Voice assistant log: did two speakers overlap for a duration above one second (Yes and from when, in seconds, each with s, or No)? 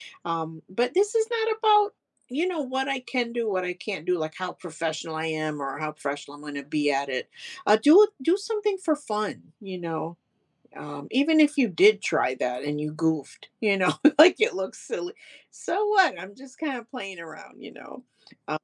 No